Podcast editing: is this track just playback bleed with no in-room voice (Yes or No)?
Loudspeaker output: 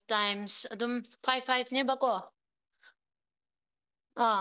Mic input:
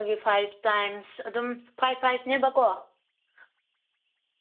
Yes